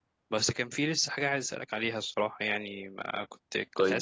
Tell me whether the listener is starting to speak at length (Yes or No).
No